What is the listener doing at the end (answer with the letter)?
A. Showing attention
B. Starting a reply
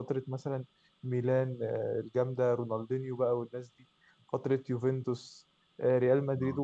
A